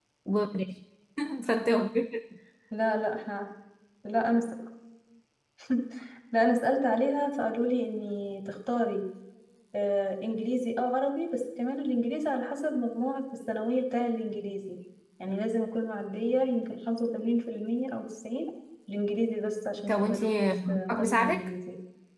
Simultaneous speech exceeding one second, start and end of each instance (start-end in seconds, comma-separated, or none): 19.9-21.5